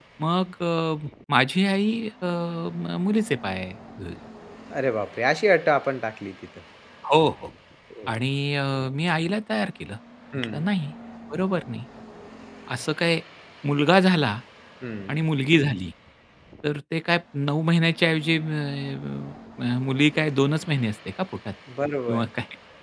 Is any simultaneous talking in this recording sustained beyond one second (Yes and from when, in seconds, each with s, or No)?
No